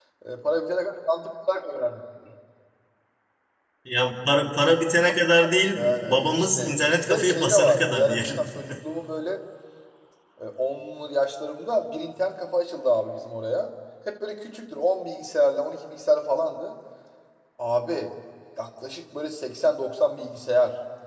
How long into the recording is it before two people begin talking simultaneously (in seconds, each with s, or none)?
5.8 s